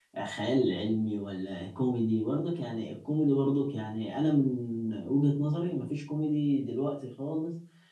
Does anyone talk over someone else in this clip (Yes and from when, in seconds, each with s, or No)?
No